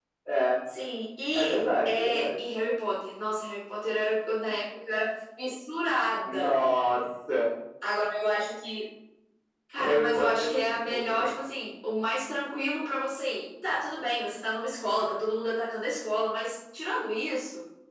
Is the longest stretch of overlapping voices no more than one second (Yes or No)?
No